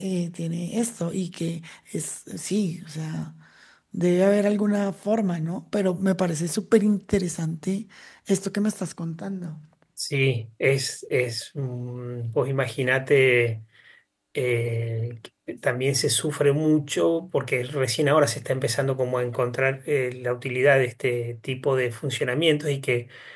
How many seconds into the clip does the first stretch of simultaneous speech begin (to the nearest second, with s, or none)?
none